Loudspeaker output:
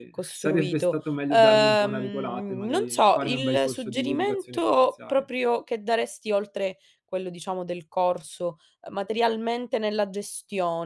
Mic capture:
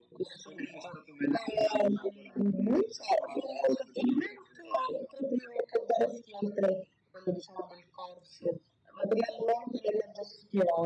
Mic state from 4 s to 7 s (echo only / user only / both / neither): echo only